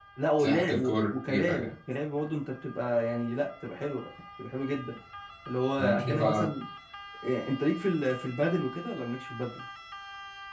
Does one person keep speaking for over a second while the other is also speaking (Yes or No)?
Yes